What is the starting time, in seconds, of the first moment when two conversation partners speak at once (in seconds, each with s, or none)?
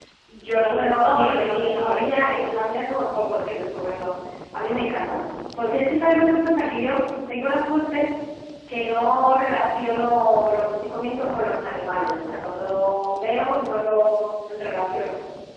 0.6 s